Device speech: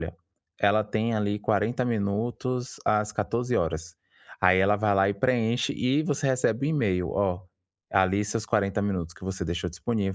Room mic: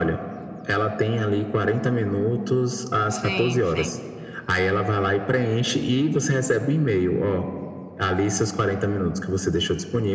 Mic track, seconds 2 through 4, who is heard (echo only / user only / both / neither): both